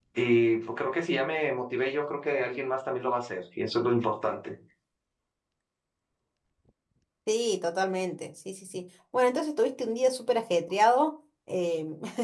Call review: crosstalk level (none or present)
none